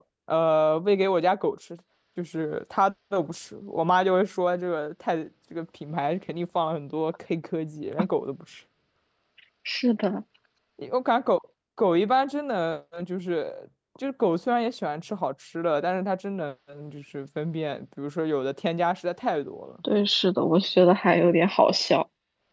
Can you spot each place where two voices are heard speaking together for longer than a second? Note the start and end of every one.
none

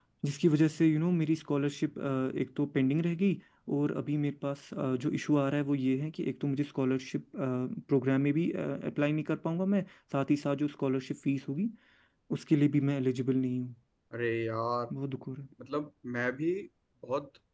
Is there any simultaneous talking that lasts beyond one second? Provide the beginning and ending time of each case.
none

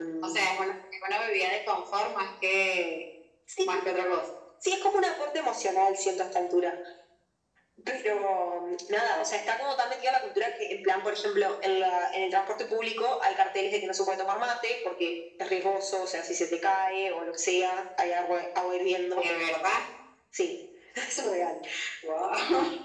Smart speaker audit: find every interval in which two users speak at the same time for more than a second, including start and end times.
none

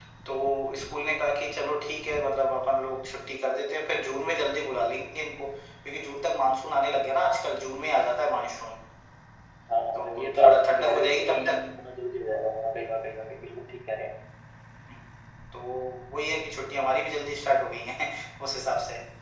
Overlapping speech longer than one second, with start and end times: 10.0-11.6

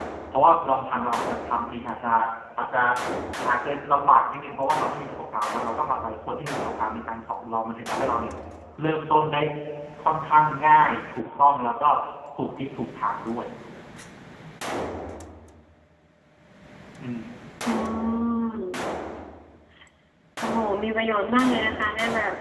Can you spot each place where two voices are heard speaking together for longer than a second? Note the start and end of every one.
none

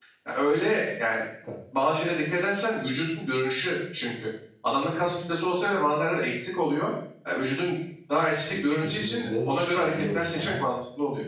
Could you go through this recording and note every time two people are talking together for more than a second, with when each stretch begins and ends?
8.5-10.7

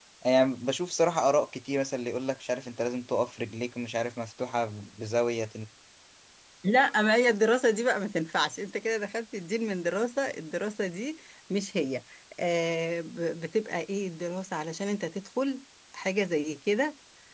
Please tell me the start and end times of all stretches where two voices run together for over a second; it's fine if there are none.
none

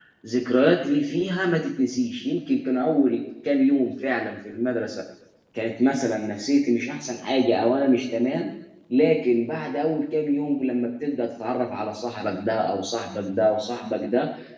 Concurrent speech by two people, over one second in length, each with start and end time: none

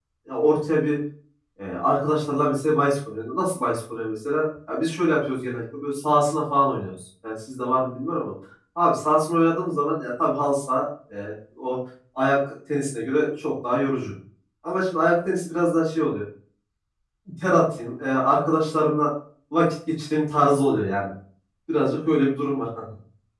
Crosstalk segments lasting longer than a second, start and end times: none

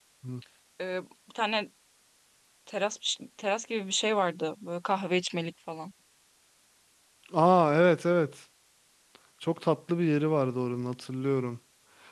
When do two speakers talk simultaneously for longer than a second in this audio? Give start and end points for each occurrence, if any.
none

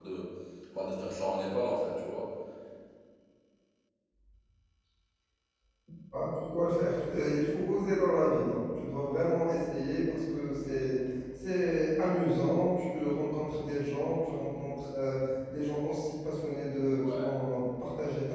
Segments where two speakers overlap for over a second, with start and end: none

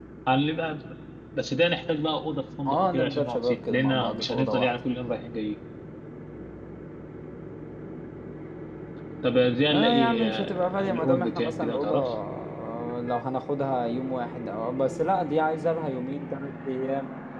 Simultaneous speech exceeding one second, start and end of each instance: 2.6-4.8, 9.7-12.1

